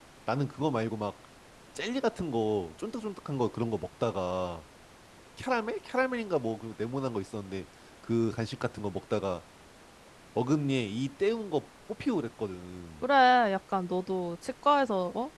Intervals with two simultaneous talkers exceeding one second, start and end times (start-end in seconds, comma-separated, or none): none